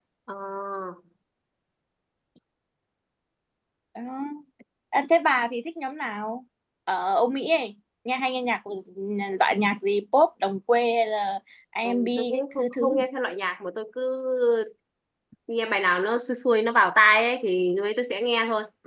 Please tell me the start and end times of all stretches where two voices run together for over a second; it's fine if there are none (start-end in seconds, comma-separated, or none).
11.8-13.1